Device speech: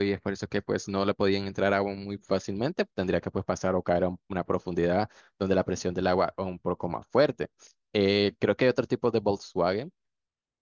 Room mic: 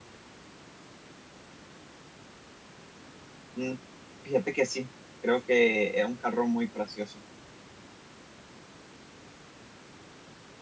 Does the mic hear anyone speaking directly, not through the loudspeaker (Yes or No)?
Yes